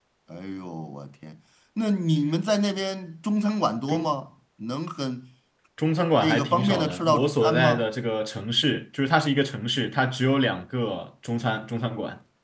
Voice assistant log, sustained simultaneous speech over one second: present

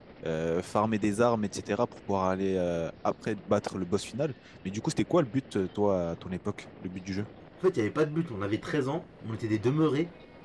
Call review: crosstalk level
none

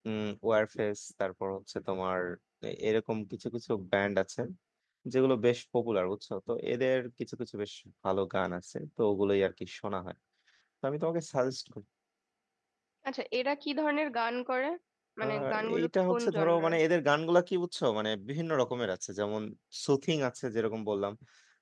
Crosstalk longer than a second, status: present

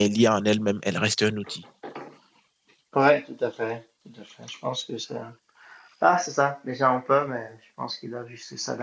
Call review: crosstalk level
none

